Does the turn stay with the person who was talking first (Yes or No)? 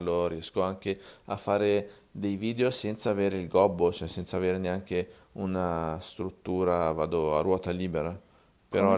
No